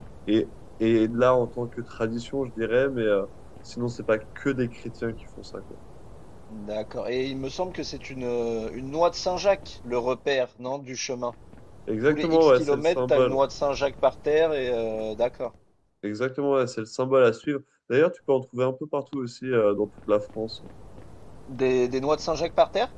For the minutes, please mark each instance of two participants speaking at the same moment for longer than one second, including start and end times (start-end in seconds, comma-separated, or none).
12.1-13.4